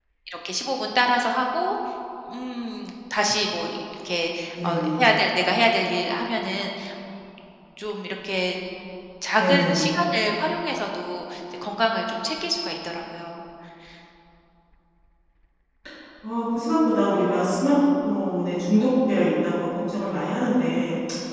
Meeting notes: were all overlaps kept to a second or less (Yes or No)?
Yes